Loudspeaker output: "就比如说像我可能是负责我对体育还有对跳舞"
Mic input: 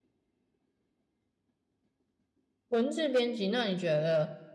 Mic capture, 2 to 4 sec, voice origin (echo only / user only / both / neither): user only